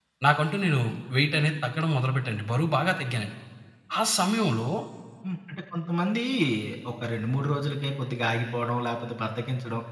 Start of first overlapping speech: none

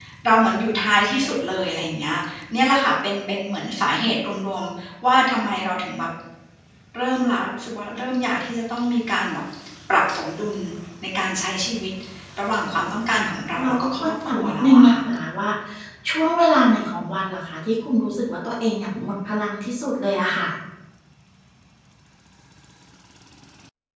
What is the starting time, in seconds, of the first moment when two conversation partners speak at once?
14 s

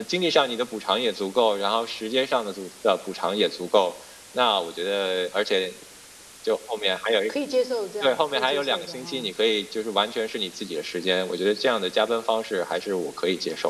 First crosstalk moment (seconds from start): 8 s

